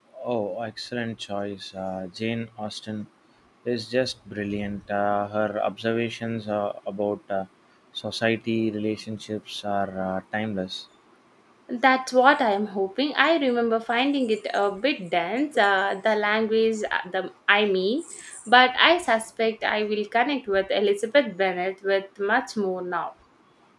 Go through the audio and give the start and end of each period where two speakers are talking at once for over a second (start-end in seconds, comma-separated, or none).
none